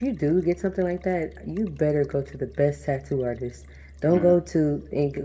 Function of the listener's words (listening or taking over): listening